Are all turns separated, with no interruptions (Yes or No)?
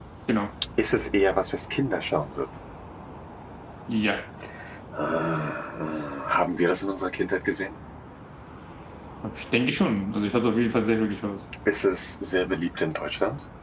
Yes